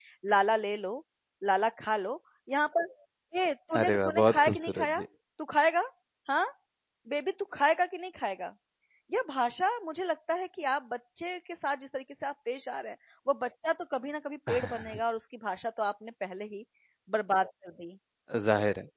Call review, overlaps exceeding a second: present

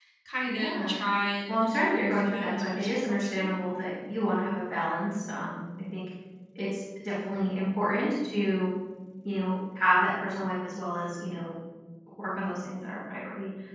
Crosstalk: present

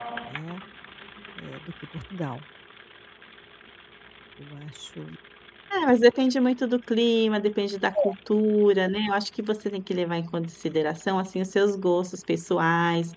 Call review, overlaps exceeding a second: none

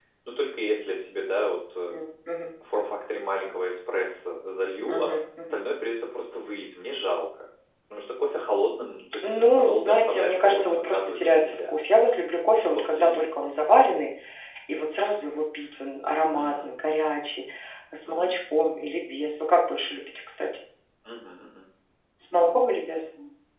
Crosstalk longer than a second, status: present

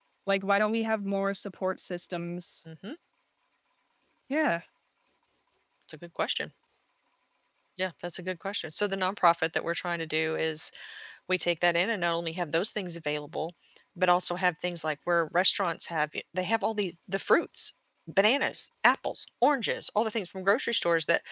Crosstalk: none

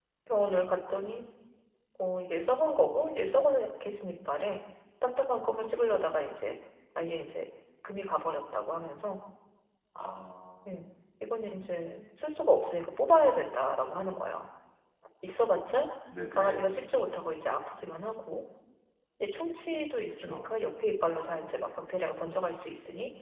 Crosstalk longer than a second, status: none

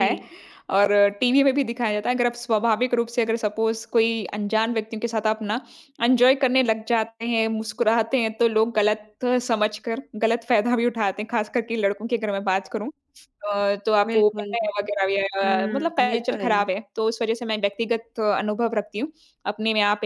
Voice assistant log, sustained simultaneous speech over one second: present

